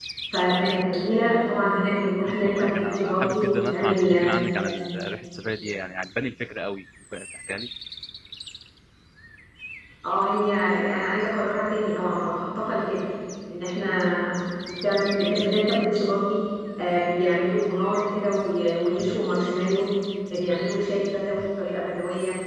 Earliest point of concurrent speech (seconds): 2.3 s

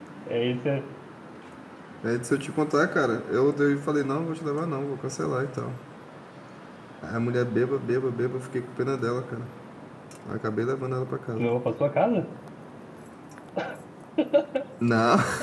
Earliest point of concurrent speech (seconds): none

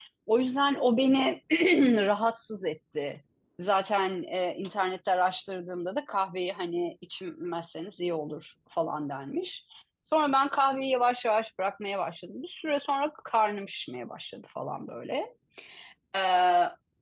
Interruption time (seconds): none

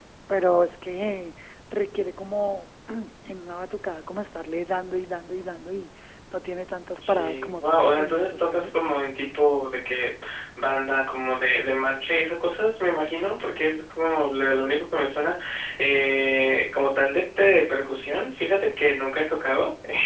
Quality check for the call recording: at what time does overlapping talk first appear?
7.1 s

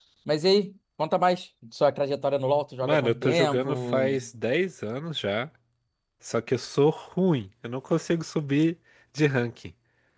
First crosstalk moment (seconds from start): 2.8 s

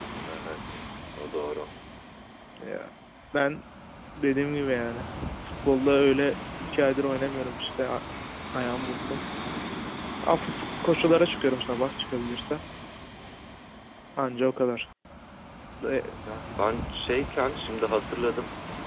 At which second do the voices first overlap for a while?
none

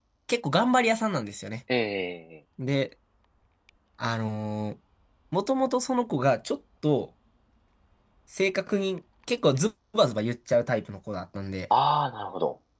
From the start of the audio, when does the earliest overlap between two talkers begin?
none

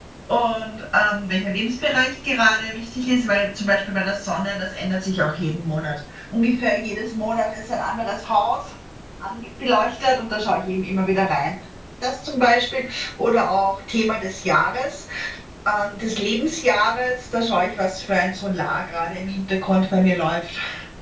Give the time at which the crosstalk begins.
none

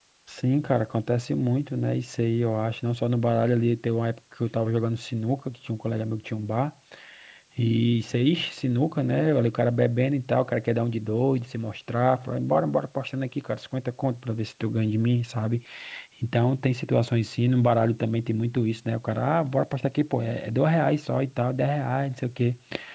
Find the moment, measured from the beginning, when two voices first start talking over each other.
none

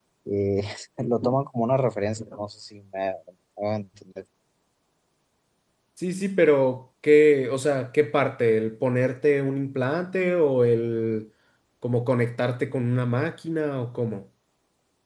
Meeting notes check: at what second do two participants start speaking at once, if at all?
none

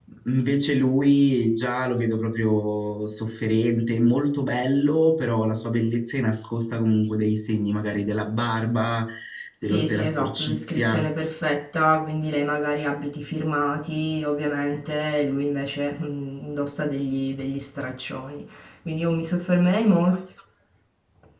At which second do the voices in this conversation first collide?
9.7 s

